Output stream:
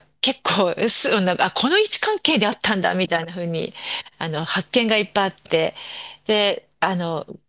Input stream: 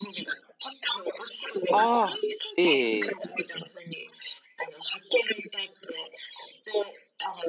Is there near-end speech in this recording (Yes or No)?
Yes